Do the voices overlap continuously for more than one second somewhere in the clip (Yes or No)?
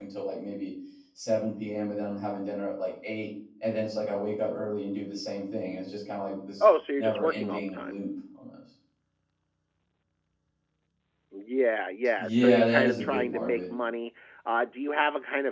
Yes